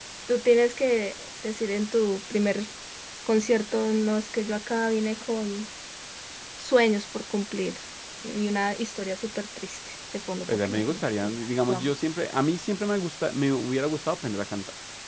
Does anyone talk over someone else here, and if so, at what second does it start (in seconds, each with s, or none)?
10.5 s